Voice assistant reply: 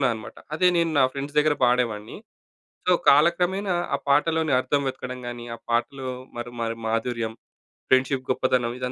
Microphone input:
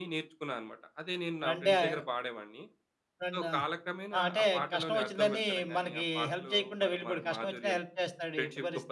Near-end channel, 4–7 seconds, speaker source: both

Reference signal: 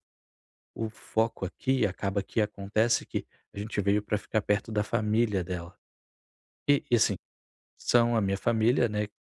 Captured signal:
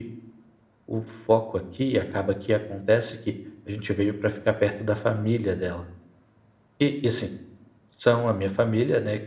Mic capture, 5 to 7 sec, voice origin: echo only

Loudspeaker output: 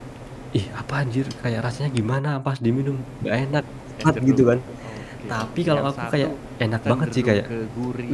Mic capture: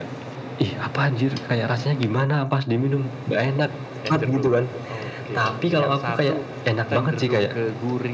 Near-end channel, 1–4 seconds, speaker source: echo only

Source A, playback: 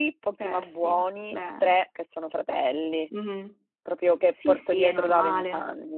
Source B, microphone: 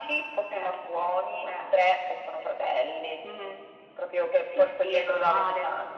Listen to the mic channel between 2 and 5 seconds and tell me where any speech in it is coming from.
echo only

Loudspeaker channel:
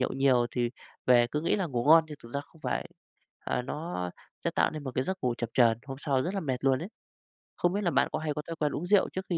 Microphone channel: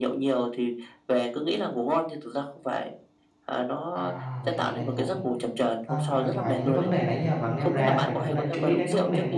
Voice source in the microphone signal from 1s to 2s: echo only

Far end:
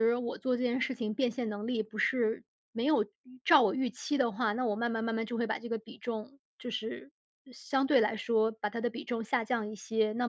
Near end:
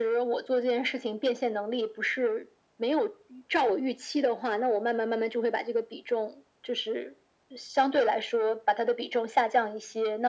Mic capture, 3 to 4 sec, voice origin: echo only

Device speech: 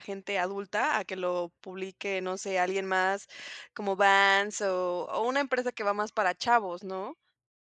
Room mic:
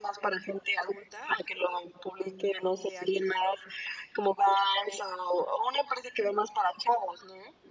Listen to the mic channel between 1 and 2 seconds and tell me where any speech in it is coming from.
echo only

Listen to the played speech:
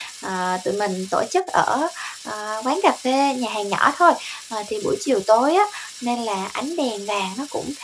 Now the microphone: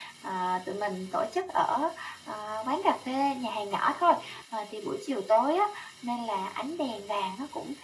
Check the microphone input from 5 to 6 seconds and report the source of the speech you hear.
echo only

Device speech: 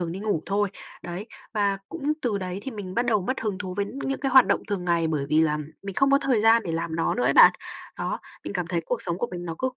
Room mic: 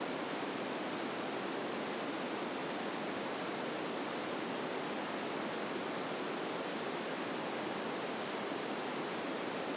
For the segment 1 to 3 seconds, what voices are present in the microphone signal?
neither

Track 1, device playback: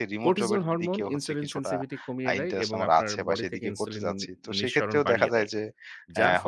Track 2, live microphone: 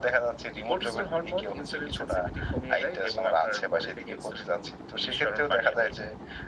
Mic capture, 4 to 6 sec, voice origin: echo only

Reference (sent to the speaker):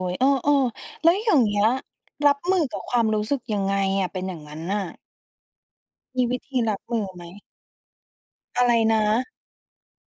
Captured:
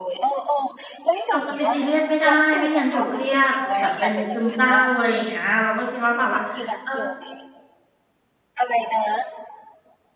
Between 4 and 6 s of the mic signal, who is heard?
both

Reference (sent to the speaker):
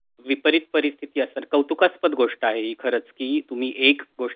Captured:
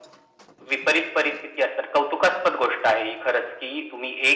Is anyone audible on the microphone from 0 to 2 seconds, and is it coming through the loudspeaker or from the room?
echo only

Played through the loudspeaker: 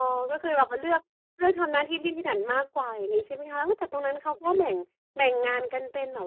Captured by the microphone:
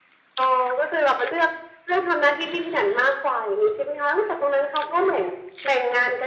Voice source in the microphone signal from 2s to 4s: echo only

